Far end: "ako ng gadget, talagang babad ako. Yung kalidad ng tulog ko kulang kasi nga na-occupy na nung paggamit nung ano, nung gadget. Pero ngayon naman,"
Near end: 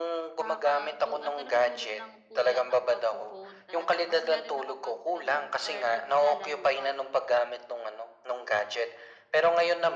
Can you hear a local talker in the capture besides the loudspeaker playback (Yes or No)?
Yes